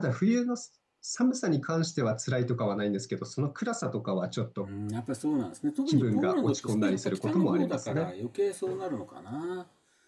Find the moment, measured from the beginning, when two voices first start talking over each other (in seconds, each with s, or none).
5.9 s